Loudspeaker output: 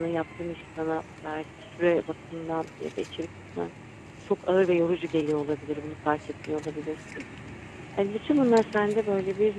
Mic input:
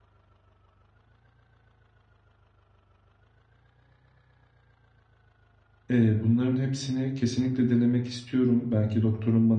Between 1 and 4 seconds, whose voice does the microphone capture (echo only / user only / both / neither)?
neither